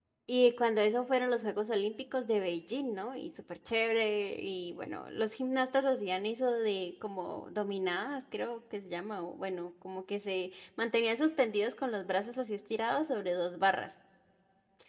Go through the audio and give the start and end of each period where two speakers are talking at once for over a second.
none

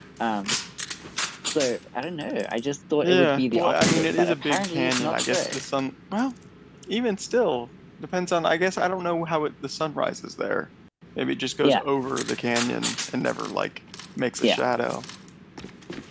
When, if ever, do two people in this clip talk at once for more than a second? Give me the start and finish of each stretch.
3.0-5.6

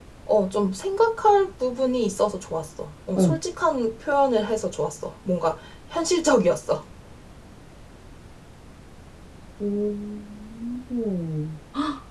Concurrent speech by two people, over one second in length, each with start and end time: none

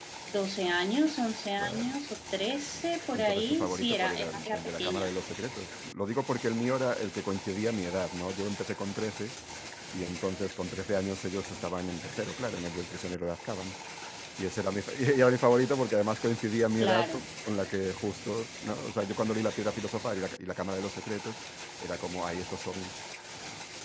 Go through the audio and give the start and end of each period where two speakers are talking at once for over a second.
3.1-5.1

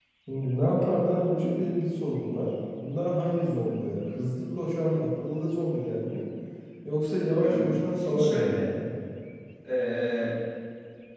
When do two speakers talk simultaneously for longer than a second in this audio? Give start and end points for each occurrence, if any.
7.4-8.6

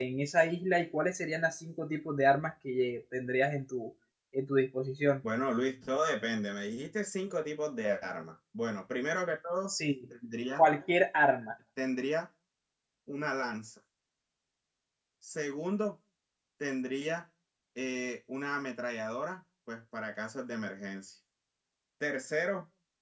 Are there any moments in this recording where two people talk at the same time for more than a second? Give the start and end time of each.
none

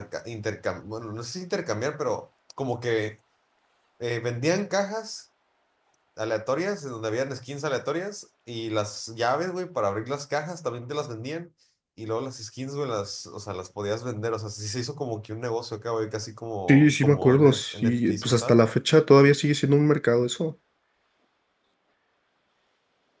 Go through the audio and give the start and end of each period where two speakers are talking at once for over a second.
16.7-18.6

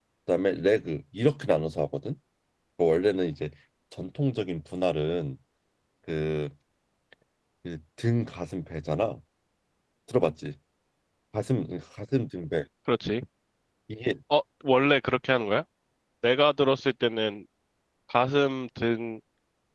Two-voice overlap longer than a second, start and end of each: none

